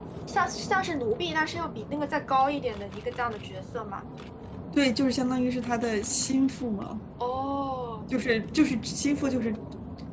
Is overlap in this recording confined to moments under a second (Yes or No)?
Yes